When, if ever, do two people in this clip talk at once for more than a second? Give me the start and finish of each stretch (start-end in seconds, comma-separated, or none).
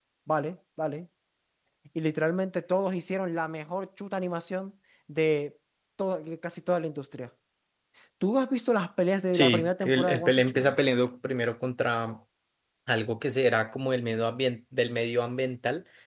9.3-10.8